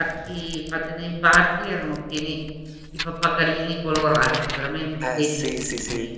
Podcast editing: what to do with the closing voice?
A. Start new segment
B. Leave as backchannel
A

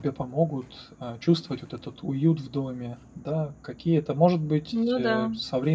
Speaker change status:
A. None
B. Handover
A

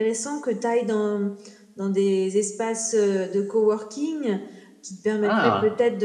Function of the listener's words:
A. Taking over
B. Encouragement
B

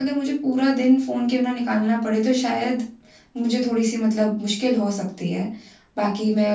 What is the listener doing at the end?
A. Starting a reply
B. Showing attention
B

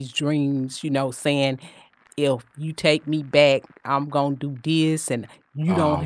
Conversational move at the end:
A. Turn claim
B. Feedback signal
B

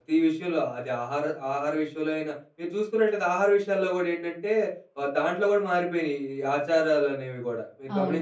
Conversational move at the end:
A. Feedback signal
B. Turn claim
B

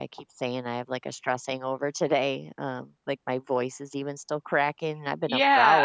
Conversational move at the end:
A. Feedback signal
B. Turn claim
B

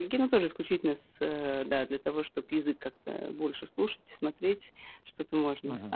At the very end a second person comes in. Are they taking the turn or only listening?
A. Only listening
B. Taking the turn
B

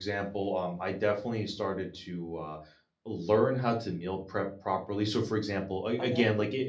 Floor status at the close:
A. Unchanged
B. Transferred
A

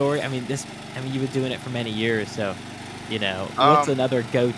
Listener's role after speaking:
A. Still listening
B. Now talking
A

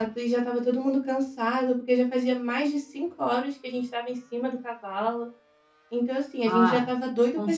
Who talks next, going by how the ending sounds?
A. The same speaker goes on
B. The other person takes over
B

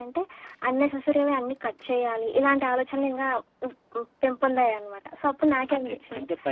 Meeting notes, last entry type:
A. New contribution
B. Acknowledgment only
A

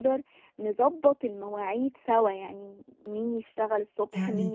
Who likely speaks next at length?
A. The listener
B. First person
B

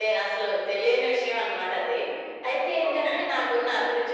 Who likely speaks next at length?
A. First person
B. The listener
A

